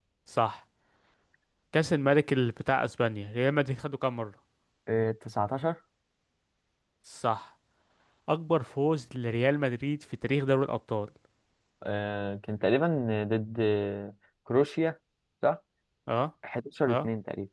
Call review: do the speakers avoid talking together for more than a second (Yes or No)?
Yes